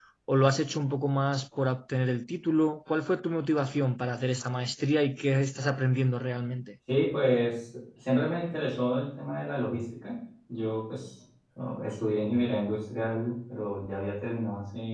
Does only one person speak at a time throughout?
Yes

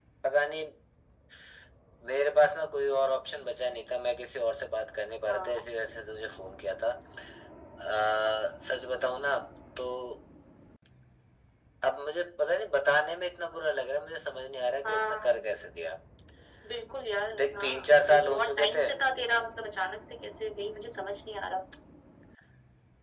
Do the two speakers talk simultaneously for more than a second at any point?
Yes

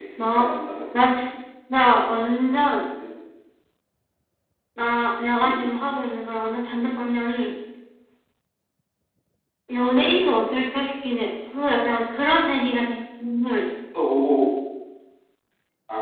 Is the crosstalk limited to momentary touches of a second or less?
Yes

